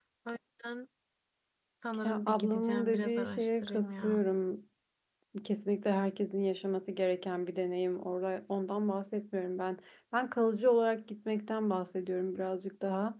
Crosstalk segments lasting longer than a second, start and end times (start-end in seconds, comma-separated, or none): 2.0-4.2